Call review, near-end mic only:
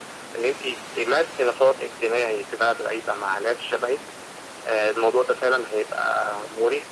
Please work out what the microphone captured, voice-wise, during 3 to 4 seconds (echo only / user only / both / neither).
echo only